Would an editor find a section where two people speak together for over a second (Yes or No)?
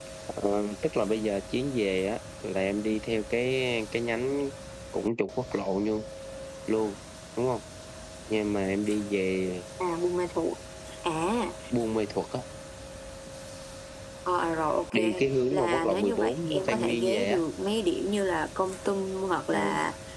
Yes